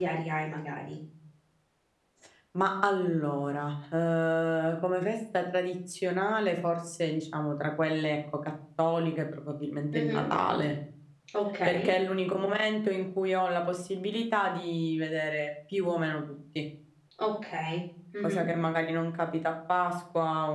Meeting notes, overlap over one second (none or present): none